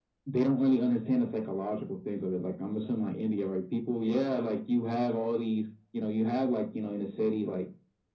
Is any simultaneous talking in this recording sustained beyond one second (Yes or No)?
No